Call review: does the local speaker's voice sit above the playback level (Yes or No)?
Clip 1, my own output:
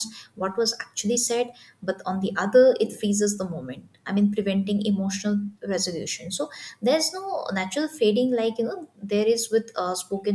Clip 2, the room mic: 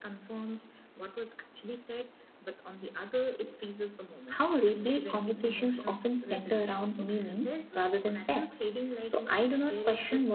Yes